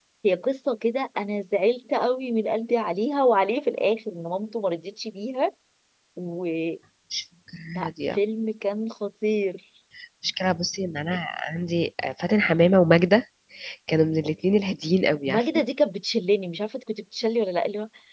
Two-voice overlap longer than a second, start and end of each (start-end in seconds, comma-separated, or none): none